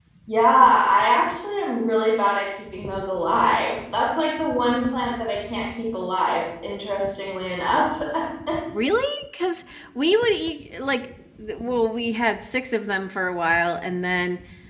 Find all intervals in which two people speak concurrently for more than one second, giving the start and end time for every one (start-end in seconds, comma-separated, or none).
none